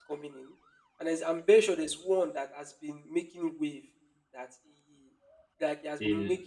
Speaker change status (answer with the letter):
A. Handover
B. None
B